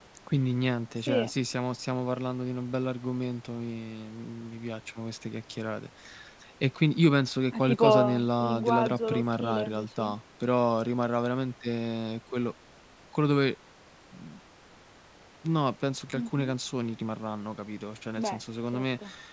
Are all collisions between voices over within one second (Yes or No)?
No